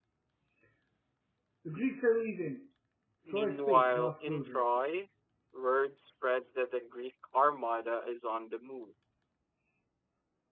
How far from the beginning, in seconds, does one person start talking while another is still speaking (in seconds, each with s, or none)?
3.3 s